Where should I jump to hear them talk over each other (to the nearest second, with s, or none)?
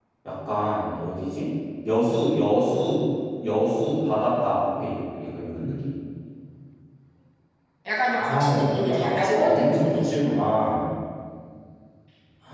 8 s